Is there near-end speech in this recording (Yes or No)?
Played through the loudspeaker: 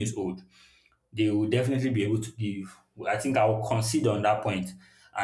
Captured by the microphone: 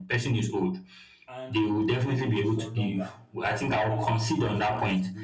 Yes